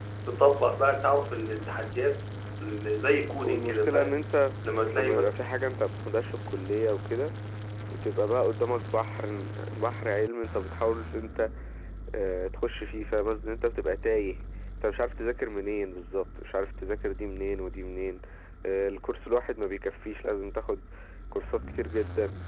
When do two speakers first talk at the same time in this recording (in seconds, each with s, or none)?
3.0 s